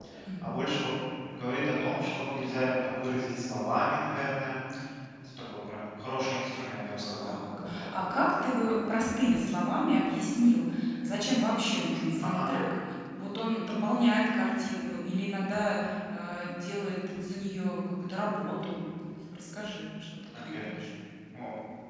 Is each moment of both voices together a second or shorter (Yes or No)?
Yes